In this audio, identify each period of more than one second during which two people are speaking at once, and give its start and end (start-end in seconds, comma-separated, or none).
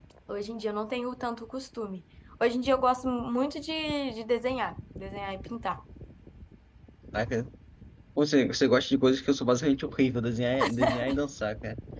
none